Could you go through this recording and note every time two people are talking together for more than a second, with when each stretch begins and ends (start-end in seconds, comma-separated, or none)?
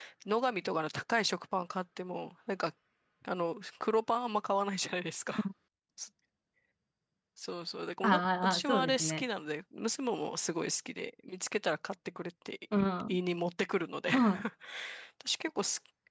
8.0-9.2